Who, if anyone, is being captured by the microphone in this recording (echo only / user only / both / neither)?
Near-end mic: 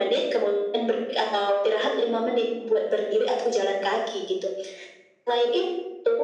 echo only